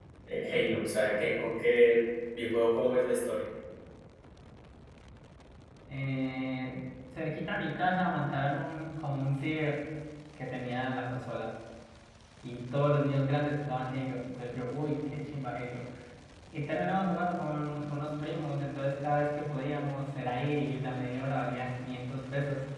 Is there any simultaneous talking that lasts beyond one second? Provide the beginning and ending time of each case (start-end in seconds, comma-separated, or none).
none